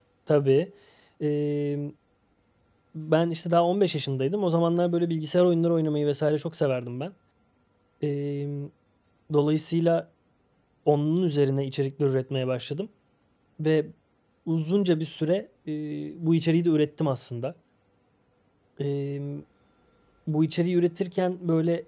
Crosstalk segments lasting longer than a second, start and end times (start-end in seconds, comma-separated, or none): none